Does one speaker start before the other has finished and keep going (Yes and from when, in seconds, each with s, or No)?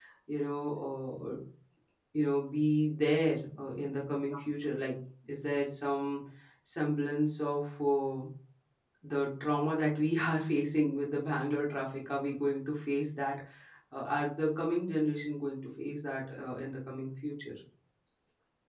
No